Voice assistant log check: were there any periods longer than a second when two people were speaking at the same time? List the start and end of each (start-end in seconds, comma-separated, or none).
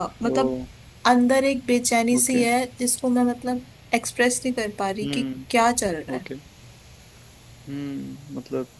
none